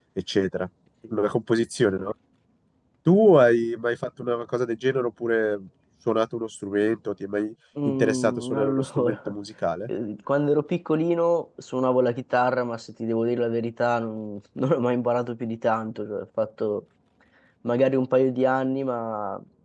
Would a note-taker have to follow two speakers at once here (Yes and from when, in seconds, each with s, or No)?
Yes, from 7.8 s